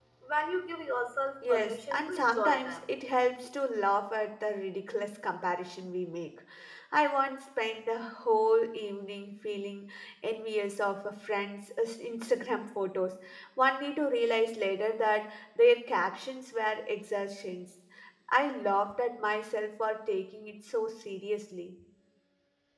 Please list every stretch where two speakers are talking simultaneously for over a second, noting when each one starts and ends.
1.5-2.8

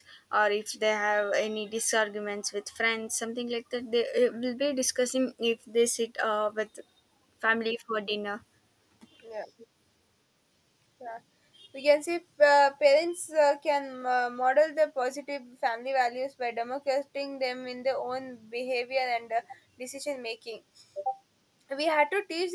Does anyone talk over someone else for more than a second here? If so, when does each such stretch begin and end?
none

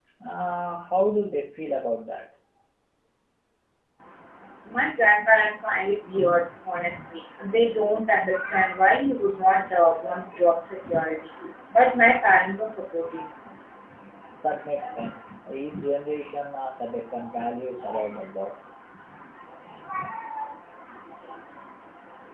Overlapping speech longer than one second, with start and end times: none

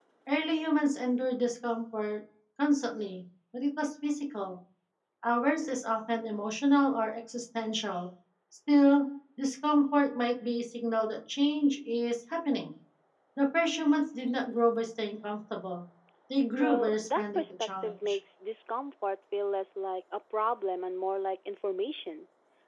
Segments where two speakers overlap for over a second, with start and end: 16.6-18.2

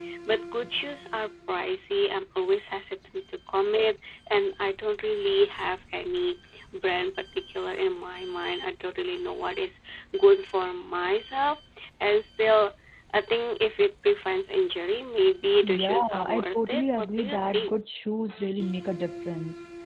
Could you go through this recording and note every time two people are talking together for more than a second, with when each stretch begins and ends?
15.6-17.8

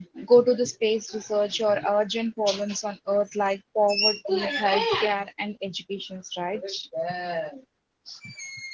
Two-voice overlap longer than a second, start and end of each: none

